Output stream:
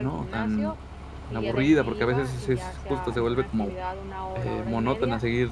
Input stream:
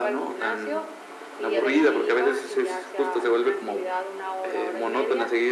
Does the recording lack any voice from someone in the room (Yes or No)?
Yes